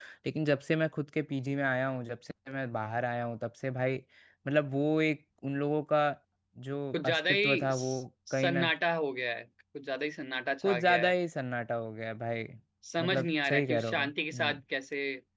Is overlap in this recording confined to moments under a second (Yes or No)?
No